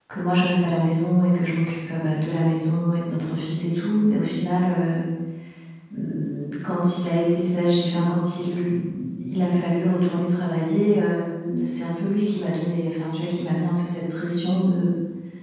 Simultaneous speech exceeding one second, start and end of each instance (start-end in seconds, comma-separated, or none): none